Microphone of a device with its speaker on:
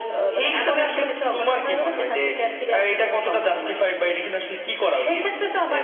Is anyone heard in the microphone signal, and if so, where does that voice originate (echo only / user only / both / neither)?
echo only